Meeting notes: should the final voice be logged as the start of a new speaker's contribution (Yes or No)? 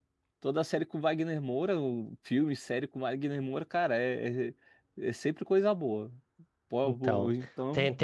Yes